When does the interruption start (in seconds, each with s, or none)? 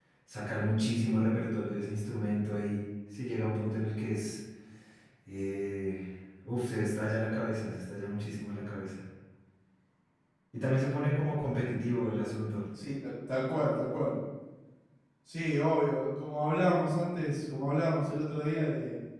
none